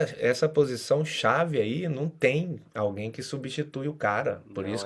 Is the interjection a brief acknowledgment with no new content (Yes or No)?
Yes